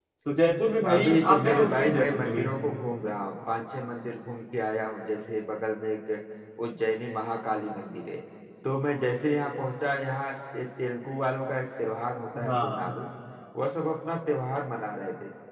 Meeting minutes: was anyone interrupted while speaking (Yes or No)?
Yes